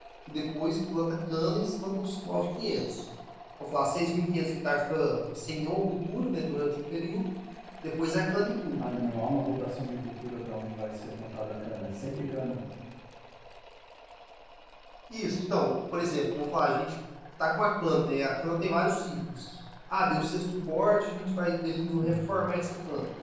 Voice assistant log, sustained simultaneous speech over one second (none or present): none